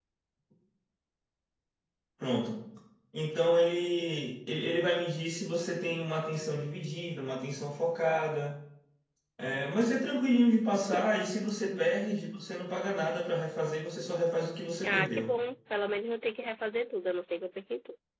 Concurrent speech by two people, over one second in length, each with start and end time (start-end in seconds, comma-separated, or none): none